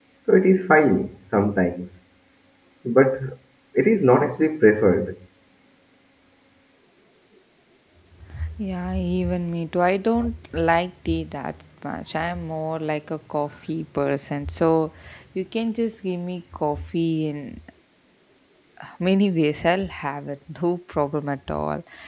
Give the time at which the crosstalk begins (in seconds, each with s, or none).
none